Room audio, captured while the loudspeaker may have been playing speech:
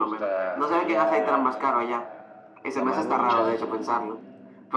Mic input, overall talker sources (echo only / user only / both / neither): both